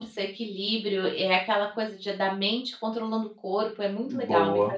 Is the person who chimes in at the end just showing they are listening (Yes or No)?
No